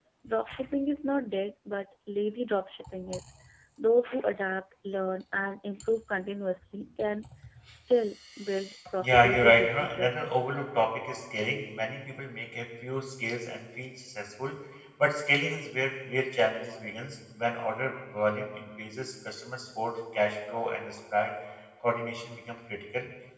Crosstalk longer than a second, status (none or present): present